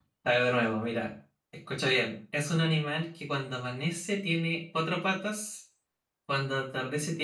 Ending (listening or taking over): listening